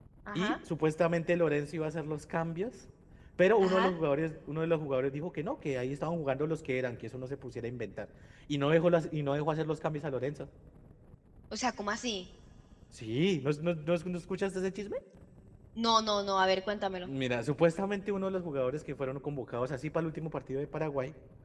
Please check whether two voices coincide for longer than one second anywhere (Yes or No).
No